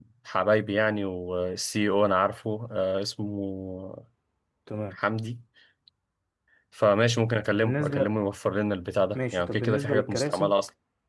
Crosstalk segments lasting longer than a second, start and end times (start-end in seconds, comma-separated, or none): 9.2-10.5